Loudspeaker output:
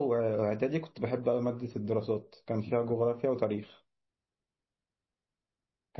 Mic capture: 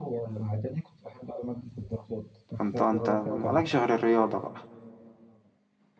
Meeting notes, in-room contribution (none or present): present